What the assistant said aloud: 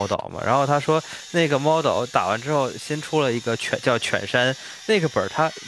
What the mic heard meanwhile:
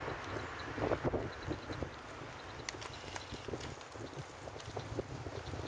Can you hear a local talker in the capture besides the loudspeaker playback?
No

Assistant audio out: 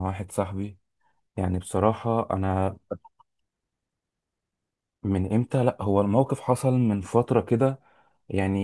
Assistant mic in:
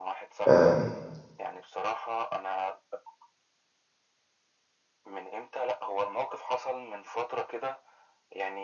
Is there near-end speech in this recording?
Yes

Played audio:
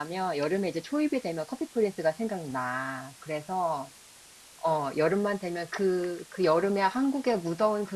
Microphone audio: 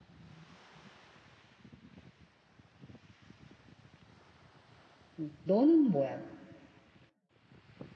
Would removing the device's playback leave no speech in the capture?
No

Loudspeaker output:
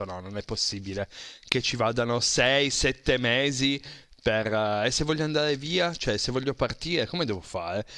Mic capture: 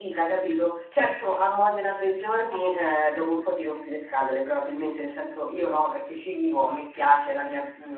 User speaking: Yes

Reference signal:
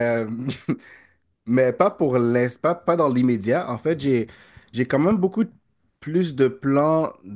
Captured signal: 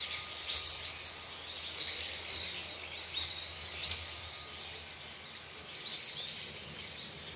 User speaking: No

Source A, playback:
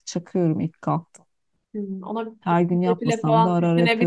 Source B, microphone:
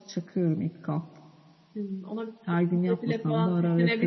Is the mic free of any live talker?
Yes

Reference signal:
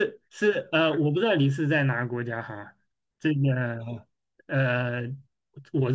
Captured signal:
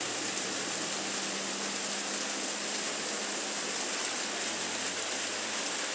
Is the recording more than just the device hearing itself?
No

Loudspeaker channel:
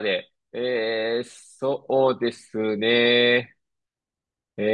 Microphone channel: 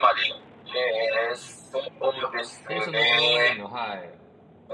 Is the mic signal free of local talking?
No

